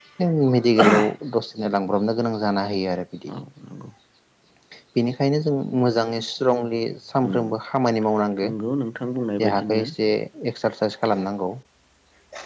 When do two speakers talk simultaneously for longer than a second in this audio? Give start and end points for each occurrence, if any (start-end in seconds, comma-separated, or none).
none